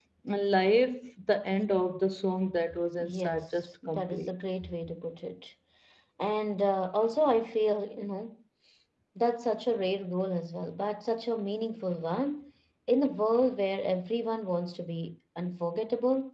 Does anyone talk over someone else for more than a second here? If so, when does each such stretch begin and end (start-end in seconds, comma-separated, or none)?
3.0-4.3